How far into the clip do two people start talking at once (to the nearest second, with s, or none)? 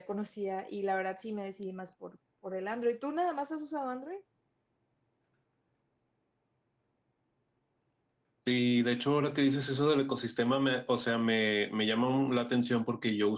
none